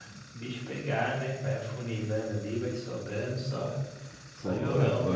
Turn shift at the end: Yes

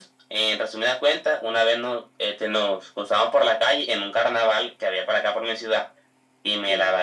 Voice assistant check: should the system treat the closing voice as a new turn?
No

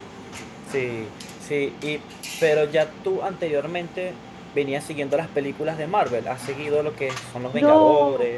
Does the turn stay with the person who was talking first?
No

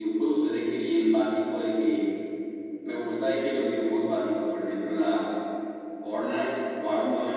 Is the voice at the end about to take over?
No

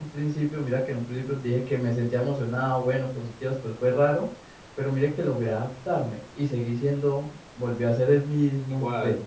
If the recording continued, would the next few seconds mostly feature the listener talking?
No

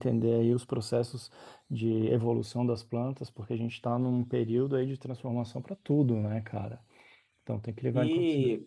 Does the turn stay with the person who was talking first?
No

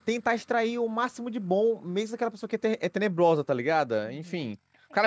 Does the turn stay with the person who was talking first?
No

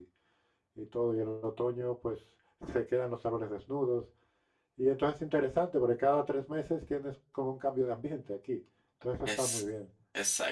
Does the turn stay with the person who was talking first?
No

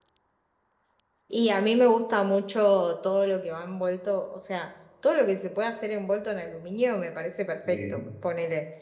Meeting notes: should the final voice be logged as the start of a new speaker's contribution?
No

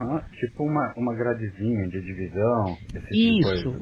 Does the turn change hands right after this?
Yes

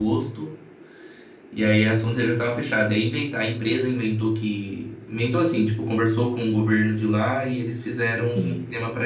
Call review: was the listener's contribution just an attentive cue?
Yes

